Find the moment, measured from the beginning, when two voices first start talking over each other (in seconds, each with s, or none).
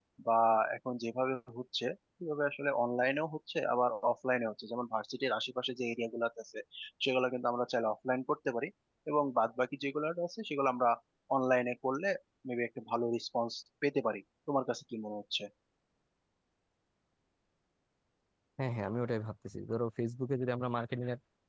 none